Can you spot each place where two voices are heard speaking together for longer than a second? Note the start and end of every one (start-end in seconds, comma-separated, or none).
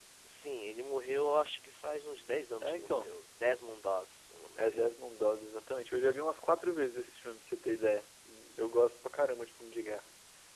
none